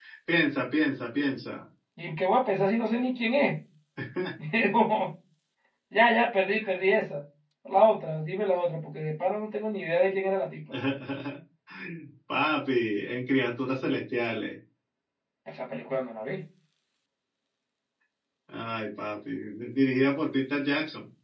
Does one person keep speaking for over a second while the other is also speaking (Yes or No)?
No